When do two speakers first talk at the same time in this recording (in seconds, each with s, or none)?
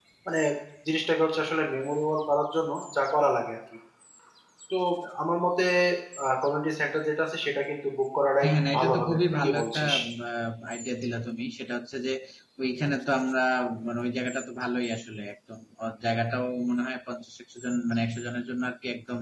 8.4 s